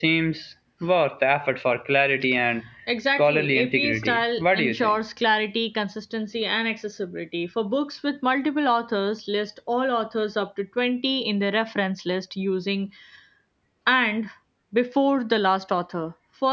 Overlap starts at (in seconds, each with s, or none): 3.2 s